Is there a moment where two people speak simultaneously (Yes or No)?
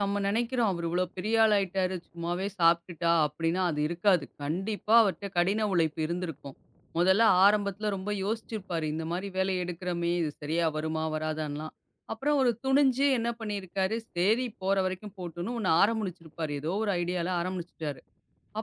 No